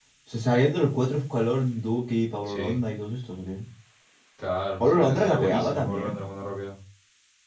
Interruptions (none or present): present